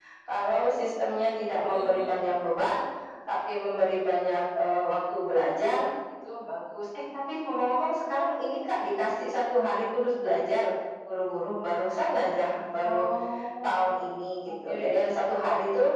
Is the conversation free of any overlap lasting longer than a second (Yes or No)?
Yes